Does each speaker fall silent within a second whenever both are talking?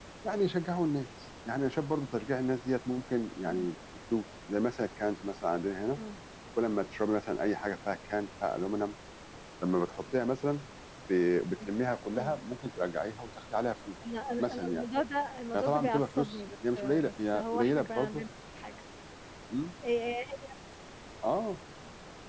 No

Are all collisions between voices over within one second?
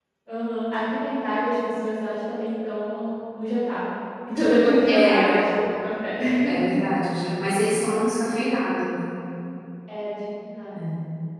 Yes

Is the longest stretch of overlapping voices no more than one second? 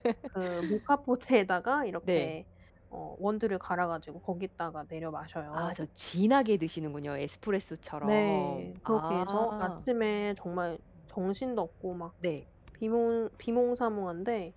No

